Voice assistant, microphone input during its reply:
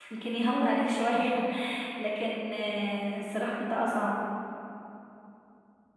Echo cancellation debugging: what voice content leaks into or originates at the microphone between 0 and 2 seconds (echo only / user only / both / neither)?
user only